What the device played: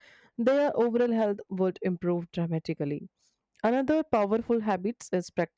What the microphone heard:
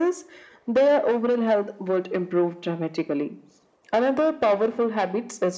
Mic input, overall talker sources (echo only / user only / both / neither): echo only